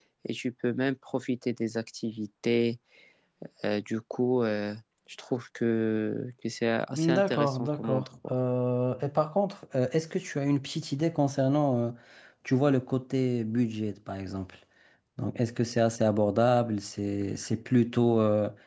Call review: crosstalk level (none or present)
present